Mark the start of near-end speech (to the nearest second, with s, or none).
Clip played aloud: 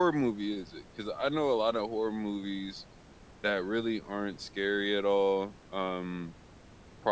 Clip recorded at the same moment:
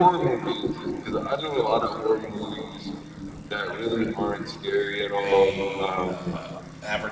5 s